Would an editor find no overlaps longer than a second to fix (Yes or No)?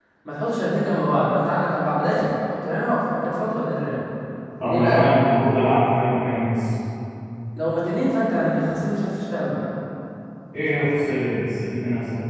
Yes